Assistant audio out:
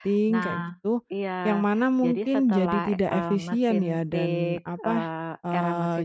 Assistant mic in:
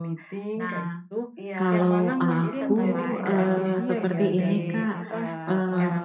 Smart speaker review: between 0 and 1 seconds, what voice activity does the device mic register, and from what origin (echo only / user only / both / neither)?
echo only